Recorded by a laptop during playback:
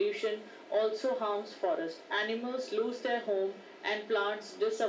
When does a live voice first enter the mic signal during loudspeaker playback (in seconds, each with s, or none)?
none